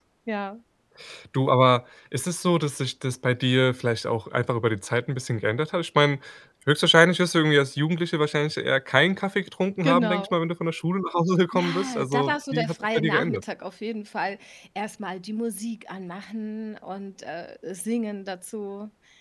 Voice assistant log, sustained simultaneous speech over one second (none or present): present